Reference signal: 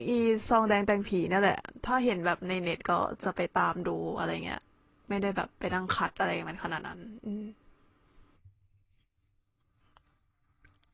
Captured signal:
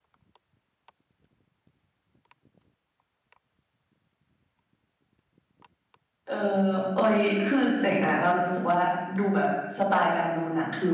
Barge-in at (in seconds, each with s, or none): 6.2 s